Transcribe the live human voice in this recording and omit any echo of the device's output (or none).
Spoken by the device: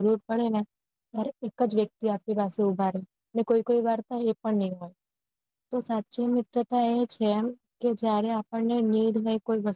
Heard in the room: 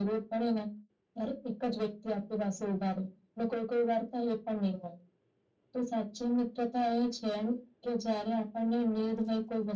none